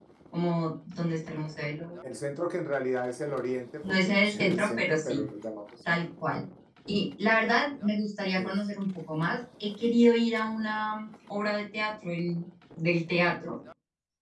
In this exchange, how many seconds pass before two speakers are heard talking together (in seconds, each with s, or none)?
3.8 s